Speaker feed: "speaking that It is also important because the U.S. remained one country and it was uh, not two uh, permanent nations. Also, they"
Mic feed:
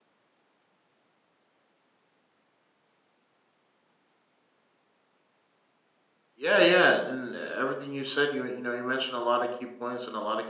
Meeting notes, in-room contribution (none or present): present